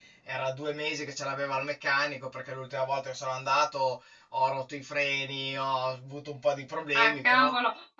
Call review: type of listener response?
taking over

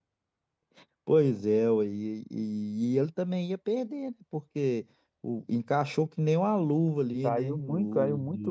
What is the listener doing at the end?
taking over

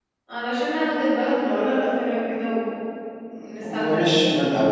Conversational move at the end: taking over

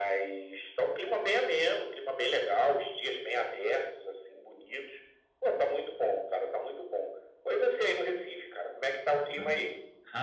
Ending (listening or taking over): taking over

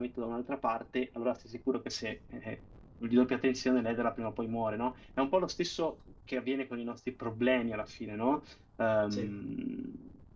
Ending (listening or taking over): listening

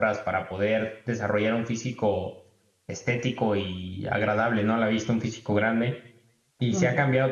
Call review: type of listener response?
listening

